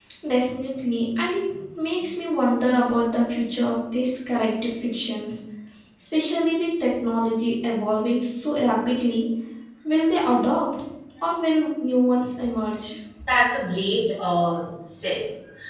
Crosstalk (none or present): none